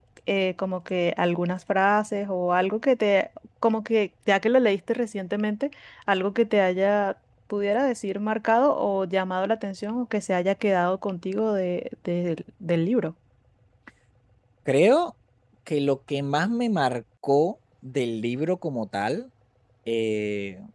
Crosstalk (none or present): none